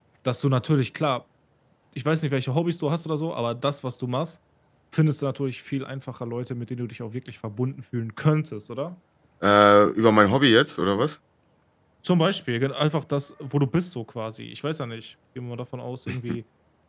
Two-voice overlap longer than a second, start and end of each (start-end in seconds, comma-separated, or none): none